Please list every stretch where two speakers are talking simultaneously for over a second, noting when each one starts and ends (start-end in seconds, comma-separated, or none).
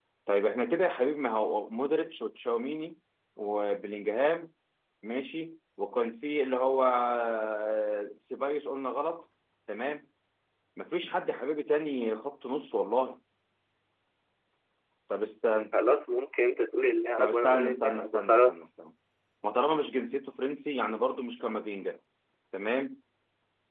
17.2-18.5